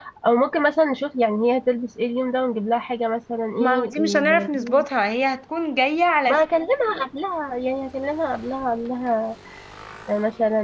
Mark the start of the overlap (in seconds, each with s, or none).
3.6 s